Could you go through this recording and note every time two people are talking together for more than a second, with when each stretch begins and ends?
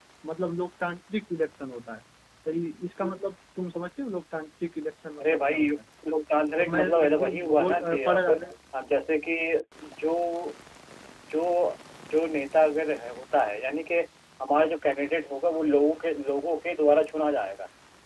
6.5-8.3

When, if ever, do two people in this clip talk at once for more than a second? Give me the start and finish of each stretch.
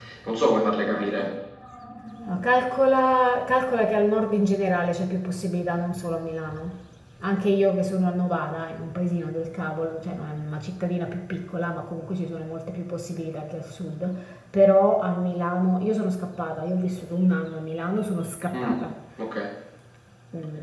none

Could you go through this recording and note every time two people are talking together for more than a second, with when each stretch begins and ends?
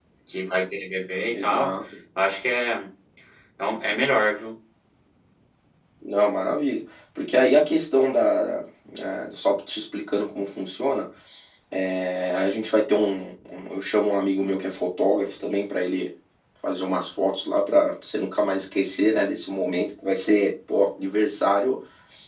none

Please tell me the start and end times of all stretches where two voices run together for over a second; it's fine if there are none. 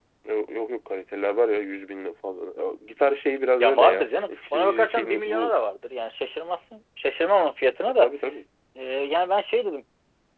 3.6-5.5

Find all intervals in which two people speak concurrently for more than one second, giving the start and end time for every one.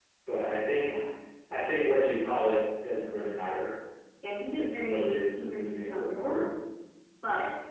4.5-6.4

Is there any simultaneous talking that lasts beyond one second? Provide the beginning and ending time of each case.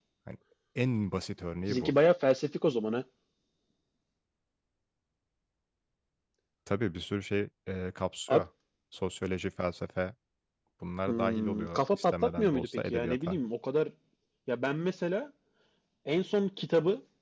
11.1-13.4

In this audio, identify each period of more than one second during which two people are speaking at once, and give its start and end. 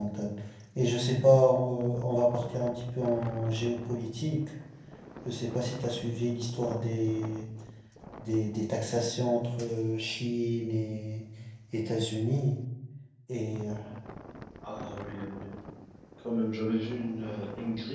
none

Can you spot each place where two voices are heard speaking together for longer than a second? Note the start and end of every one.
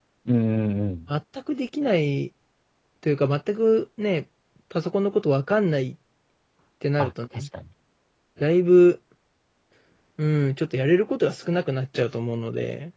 none

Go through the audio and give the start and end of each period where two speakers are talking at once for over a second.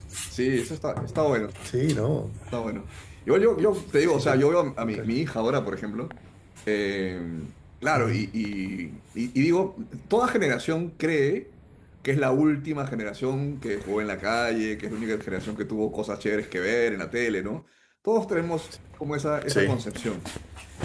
none

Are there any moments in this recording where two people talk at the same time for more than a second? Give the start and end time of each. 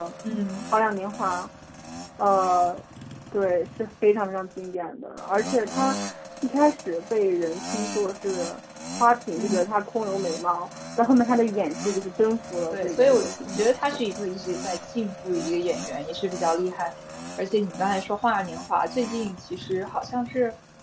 12.7-14.0

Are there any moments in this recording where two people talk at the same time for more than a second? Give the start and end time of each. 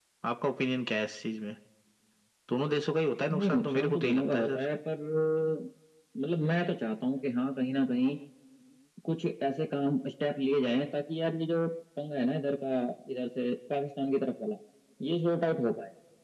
3.4-4.6

